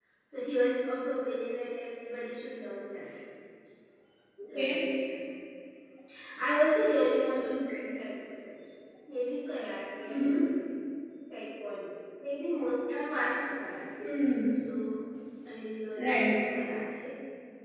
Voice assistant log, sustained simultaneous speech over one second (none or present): none